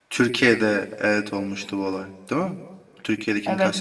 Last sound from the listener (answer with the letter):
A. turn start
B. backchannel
A